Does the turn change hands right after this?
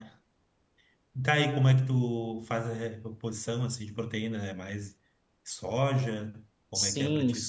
Yes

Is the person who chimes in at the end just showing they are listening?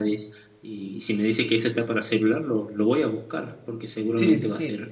No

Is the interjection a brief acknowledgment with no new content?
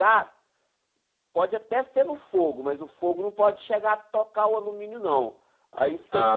Yes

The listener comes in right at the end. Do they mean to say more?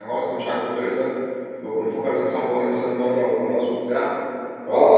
Yes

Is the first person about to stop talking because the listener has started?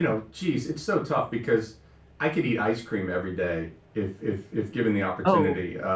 No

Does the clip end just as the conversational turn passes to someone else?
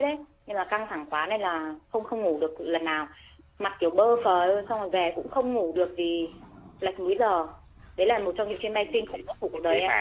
Yes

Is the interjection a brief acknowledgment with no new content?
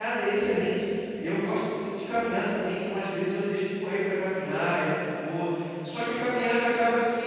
Yes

